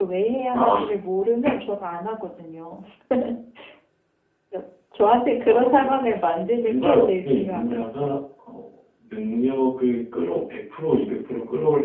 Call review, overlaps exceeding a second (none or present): present